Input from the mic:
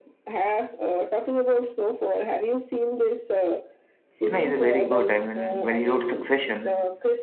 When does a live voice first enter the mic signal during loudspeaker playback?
4.2 s

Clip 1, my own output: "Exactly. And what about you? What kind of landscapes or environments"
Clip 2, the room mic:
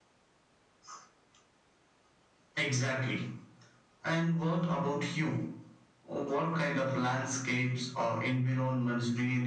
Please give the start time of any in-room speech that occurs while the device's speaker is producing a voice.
none

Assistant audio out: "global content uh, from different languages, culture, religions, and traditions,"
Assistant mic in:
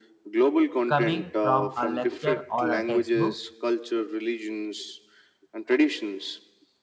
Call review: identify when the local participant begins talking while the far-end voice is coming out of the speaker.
0.9 s

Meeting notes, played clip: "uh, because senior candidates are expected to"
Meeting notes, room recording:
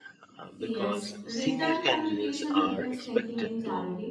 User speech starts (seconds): 0.6 s

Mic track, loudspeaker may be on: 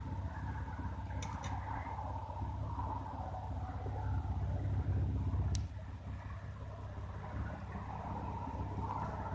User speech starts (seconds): none

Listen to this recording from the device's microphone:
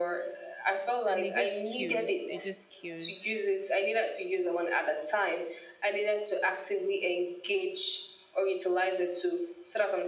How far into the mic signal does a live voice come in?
1.0 s

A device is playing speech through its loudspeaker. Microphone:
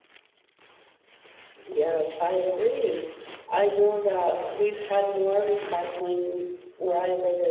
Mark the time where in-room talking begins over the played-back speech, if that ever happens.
1.6 s

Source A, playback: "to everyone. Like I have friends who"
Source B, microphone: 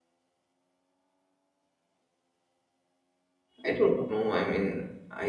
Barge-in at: 3.6 s

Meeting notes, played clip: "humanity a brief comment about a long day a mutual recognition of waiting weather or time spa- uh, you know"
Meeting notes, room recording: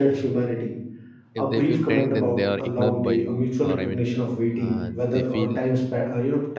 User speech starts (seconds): 1.3 s

